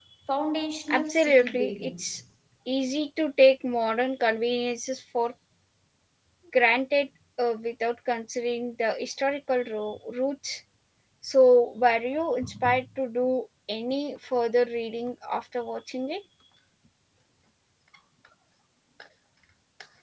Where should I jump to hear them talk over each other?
1 s

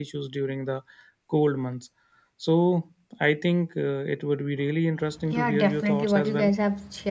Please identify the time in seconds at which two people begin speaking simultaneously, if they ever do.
5 s

